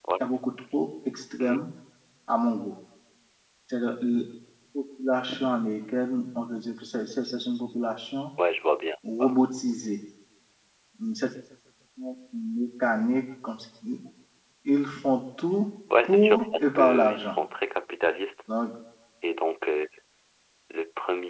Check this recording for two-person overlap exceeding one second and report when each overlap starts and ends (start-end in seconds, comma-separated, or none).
16.0-17.3